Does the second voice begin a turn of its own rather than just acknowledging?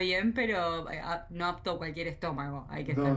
Yes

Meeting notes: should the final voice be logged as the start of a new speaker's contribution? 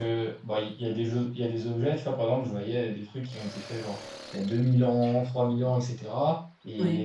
No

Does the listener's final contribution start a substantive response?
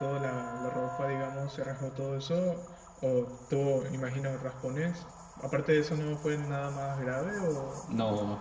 Yes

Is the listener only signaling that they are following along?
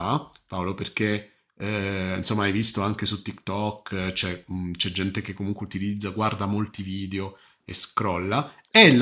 Yes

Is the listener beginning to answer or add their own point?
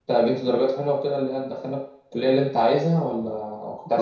Yes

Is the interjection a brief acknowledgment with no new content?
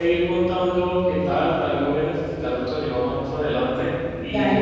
Yes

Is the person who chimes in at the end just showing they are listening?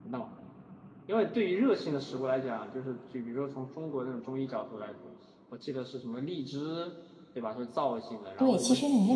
No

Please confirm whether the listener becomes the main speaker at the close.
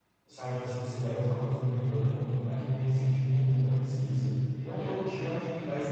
No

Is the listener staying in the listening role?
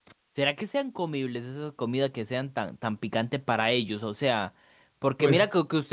Yes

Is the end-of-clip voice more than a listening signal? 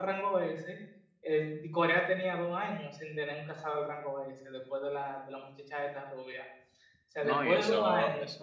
Yes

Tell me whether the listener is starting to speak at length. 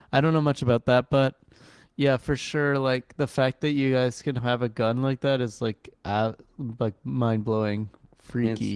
Yes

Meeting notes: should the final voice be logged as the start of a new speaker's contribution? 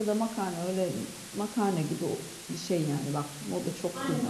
Yes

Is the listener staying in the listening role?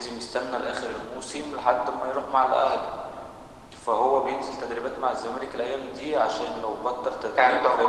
No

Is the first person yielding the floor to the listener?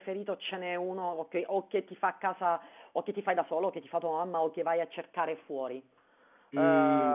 Yes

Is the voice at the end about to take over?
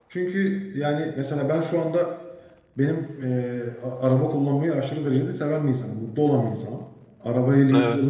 No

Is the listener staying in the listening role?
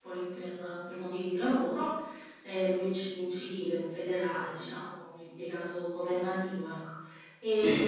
Yes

